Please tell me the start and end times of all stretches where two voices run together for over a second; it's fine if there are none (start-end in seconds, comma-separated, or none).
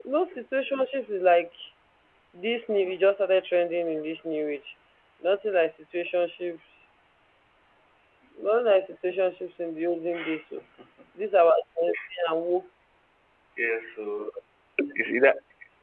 none